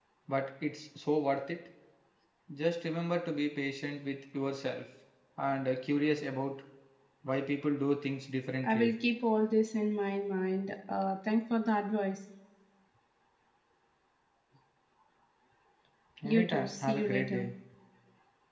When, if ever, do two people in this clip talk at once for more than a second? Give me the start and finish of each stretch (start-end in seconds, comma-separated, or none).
16.2-17.5